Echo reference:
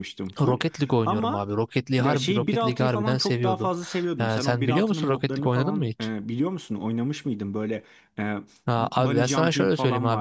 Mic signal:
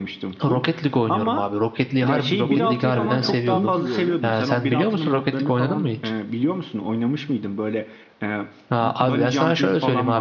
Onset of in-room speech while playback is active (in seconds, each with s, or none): 2.5 s